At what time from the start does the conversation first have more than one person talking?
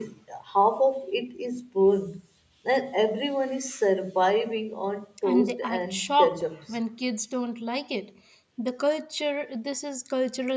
5 s

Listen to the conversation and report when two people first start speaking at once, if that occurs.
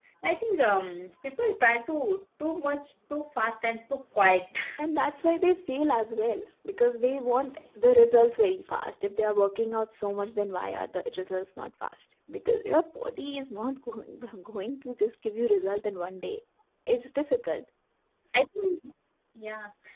none

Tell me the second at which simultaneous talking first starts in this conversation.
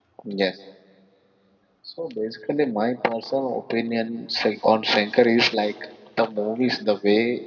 none

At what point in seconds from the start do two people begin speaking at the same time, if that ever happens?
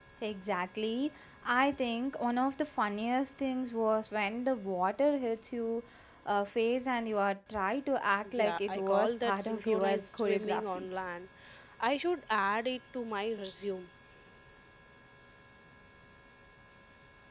8 s

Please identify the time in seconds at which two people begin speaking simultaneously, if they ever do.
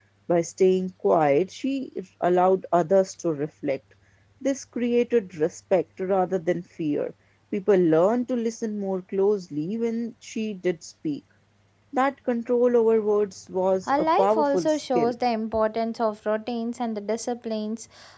14 s

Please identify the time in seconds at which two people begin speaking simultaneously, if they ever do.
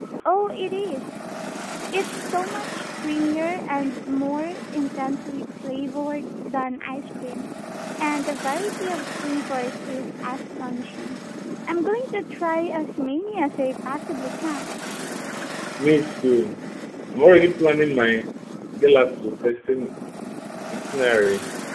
none

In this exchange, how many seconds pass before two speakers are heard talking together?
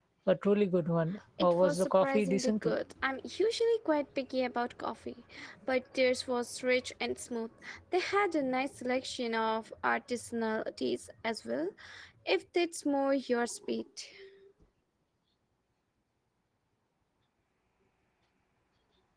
1 s

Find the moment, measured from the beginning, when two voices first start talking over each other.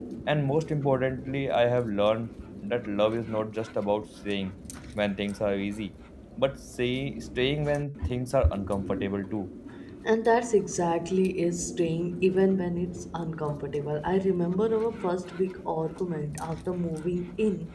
none

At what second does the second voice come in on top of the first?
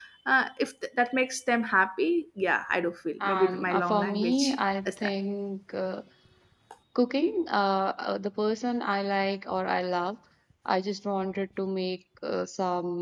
3 s

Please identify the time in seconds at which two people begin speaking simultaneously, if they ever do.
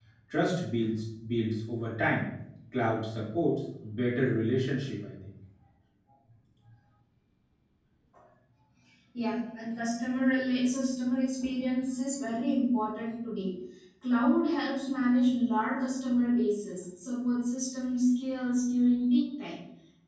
none

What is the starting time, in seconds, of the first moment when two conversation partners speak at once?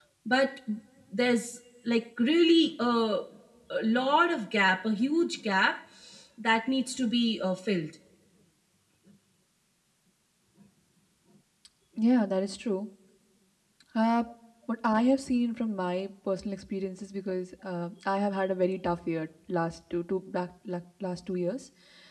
none

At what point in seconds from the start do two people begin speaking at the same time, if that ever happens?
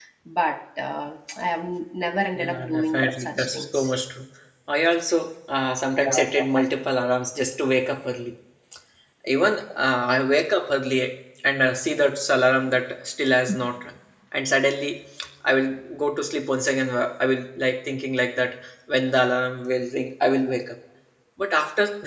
2 s

